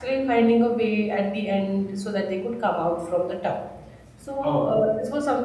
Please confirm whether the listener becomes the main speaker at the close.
No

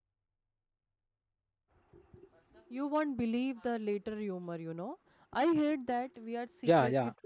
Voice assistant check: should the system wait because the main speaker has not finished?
No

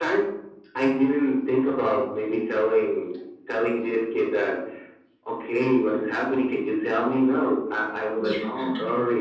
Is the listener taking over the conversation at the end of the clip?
No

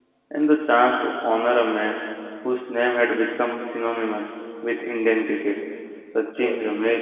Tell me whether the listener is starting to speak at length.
No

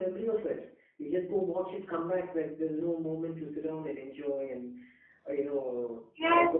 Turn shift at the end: Yes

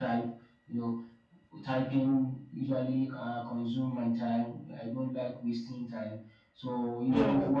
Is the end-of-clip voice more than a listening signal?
No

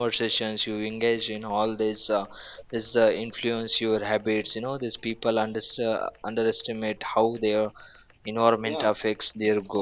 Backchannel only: No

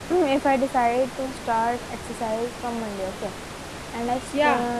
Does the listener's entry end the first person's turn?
No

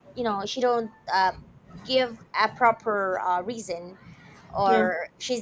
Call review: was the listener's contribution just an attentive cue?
Yes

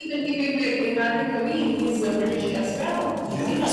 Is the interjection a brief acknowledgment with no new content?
No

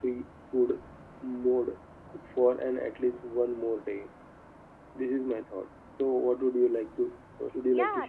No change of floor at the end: No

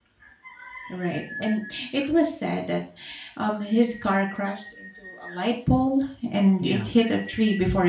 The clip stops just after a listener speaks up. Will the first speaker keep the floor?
Yes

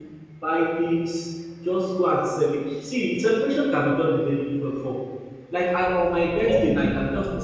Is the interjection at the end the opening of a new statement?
No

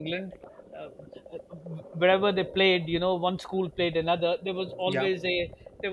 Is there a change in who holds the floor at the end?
No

